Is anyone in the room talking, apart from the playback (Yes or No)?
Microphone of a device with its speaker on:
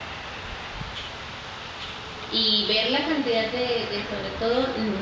Yes